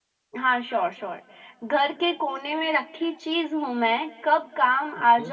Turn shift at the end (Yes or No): No